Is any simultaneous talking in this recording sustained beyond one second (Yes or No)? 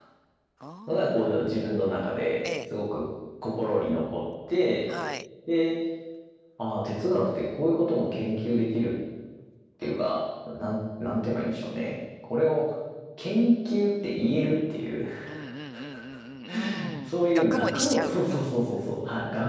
Yes